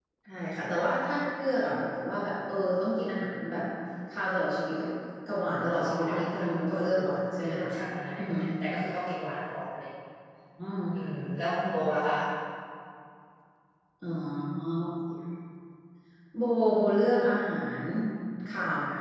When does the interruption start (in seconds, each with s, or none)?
5.6 s